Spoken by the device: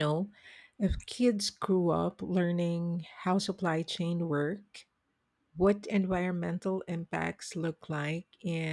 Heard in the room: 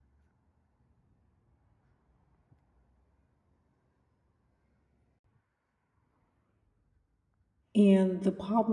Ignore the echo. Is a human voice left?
Yes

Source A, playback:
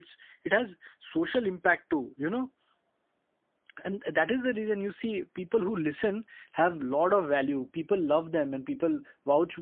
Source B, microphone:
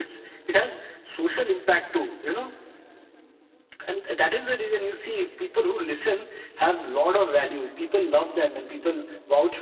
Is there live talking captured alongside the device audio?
No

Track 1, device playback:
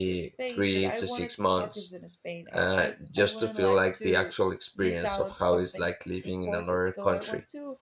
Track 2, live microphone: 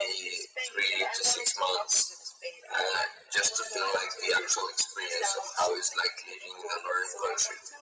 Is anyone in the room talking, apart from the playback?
No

